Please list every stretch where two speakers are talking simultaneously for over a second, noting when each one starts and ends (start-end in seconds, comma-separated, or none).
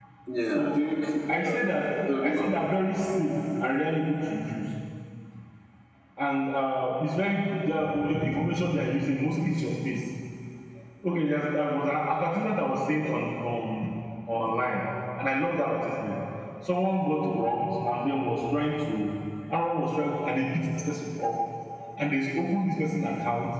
none